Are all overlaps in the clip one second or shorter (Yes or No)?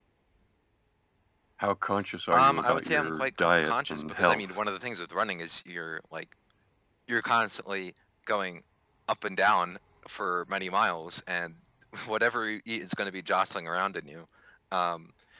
No